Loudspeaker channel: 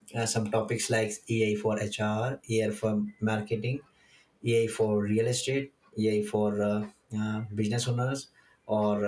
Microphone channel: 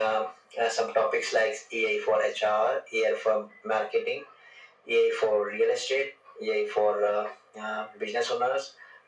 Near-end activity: none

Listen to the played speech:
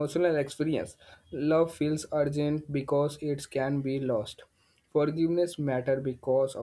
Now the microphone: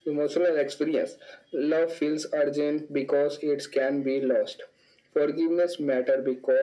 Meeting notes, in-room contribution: none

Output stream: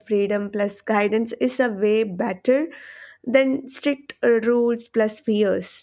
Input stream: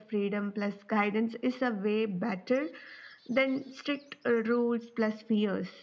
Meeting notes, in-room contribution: none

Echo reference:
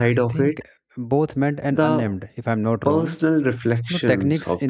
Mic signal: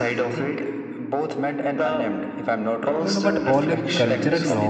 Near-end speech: present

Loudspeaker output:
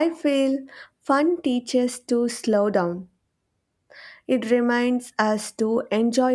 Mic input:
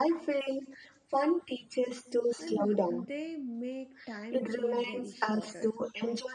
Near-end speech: present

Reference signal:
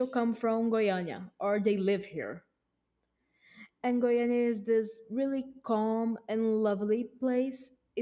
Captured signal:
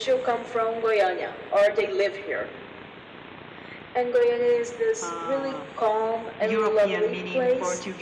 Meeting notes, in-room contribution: present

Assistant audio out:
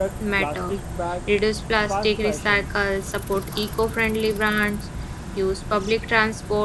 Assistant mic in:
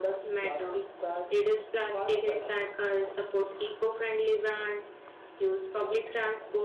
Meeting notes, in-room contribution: none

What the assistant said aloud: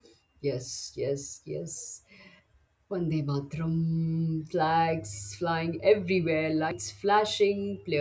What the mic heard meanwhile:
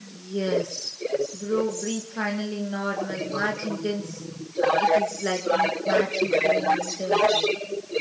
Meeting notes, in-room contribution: present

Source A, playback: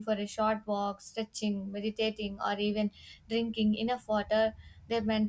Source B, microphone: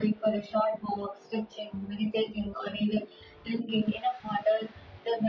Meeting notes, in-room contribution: none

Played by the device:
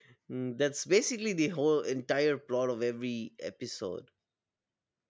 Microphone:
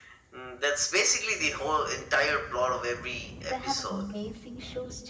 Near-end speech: present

